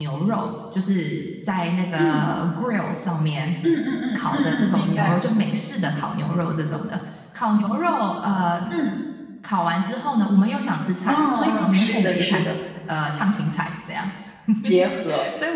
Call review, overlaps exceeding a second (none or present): present